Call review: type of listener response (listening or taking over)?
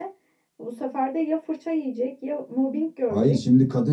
taking over